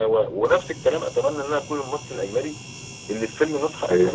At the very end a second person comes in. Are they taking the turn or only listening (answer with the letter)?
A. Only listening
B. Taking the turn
A